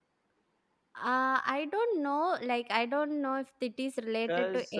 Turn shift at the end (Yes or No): No